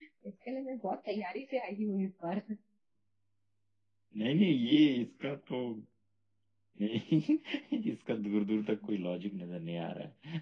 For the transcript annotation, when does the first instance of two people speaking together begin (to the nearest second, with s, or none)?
none